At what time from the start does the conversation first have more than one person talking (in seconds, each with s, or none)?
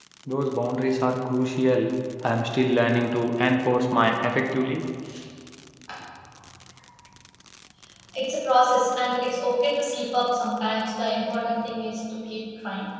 none